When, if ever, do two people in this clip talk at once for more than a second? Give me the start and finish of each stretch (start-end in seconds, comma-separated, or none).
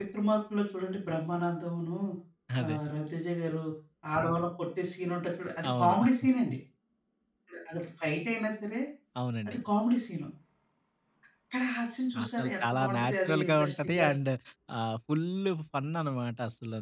12.2-14.1